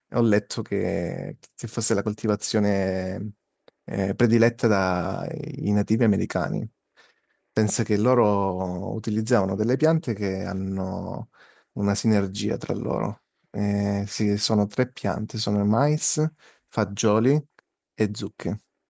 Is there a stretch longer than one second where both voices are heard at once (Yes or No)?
No